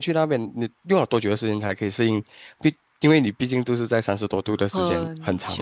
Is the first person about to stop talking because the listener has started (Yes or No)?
Yes